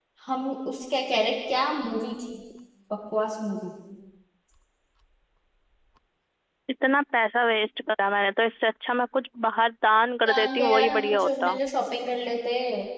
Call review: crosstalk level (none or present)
present